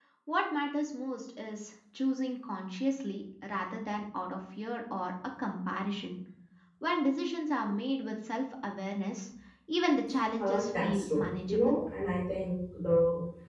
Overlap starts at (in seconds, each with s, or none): 10.4 s